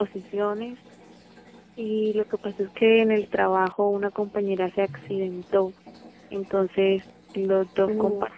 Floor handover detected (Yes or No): No